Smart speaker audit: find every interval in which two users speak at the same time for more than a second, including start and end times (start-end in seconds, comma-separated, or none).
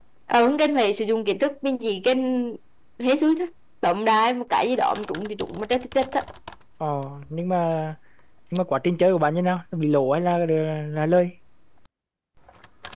none